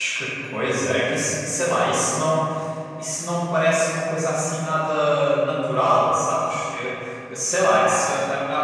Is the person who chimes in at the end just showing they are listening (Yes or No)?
Yes